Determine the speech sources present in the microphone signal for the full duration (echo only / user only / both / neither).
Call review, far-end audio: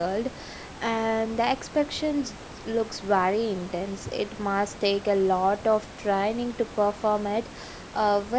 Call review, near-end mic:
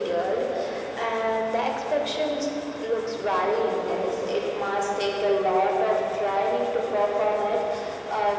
echo only